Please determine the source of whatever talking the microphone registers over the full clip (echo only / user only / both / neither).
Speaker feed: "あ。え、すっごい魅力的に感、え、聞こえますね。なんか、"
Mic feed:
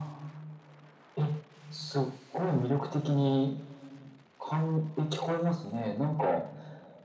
echo only